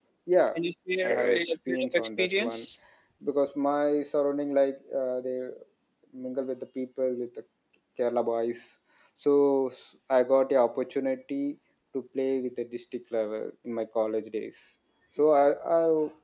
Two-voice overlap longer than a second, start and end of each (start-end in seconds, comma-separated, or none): 1.0-2.6